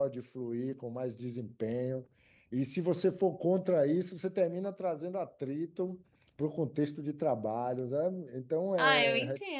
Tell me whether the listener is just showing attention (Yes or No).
No